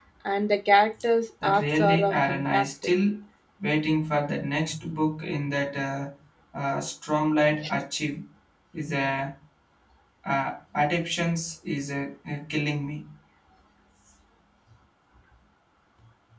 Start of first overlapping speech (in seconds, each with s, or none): 1.4 s